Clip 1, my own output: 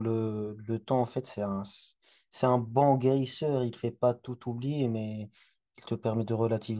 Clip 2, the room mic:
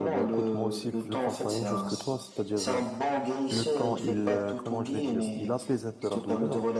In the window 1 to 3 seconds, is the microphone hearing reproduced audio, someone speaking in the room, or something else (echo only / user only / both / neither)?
both